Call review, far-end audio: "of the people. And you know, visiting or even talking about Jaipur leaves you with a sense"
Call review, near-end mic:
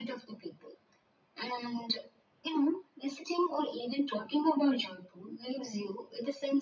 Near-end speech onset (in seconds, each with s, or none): none